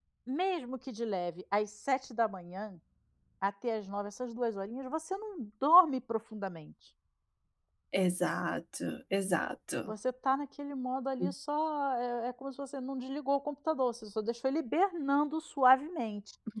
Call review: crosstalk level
none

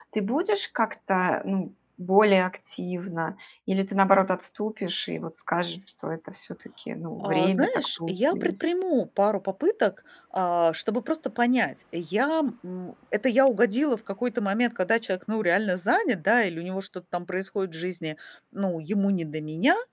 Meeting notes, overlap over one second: present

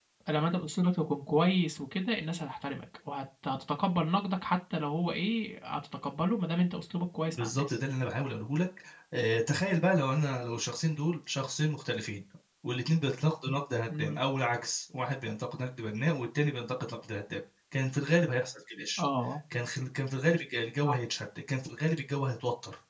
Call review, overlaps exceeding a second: none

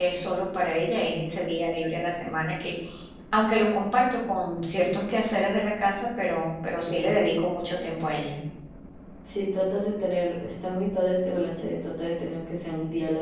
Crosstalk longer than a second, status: none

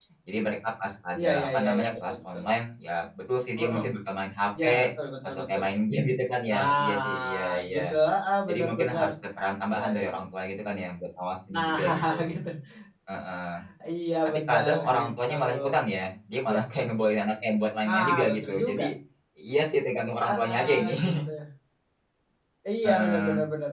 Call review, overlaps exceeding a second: present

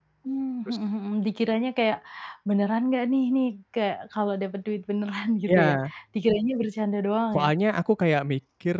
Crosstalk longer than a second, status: none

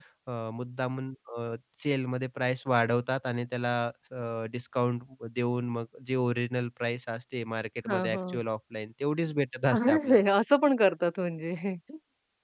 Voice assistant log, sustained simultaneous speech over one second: none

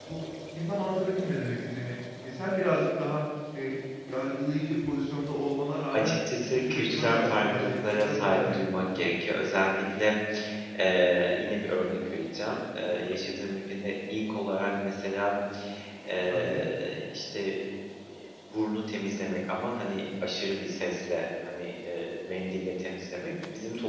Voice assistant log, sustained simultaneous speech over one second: present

